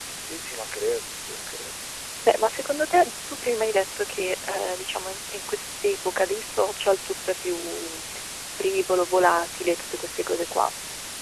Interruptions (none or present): none